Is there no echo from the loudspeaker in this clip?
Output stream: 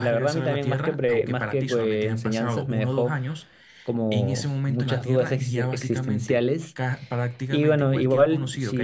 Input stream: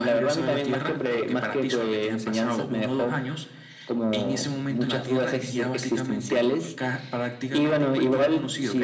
No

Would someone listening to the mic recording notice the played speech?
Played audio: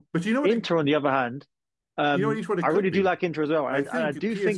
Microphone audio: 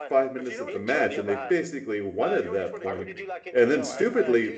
Yes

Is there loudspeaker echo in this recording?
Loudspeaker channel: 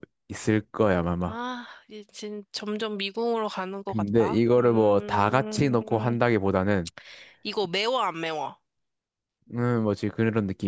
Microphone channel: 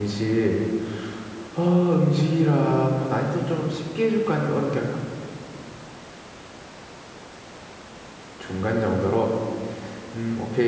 No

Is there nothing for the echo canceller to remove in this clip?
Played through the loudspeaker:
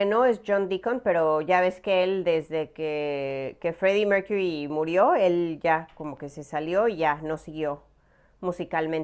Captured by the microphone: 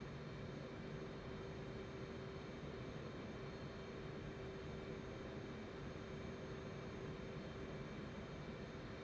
Yes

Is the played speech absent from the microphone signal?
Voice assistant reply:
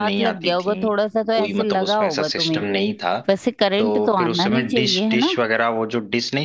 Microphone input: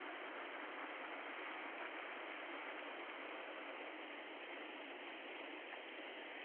Yes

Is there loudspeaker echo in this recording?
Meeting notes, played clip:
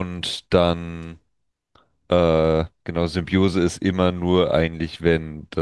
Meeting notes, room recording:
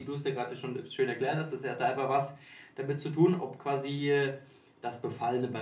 No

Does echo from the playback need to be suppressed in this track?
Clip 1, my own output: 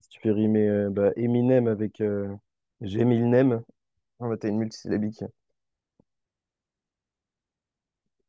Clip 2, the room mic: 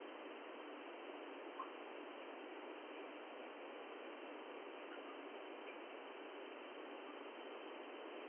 No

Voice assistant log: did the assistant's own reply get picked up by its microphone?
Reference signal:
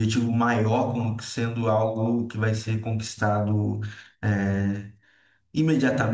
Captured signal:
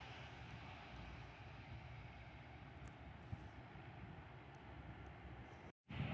No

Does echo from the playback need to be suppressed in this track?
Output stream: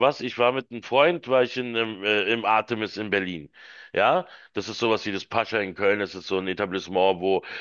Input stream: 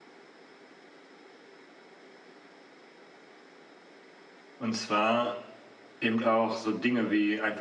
No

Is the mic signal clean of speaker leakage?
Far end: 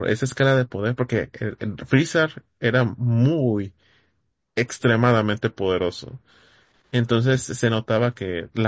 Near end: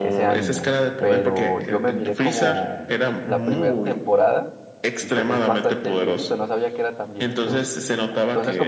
No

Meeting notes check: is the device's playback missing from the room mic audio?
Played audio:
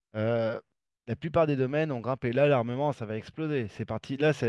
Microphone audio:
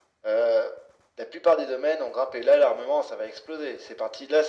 No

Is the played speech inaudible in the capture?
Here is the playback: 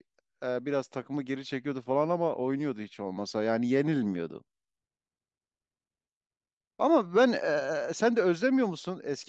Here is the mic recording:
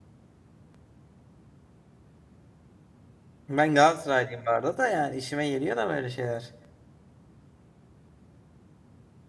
Yes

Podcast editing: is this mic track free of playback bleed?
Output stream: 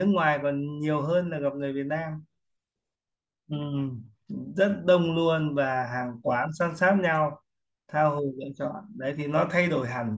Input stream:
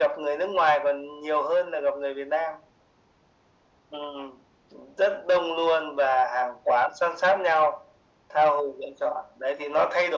No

